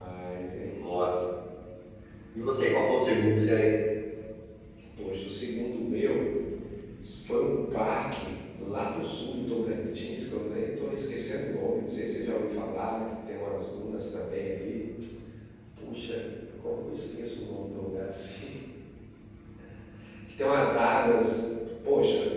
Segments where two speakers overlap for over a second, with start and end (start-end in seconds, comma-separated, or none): none